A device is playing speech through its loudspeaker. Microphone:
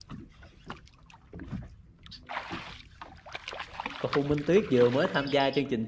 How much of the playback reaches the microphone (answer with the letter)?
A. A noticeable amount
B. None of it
B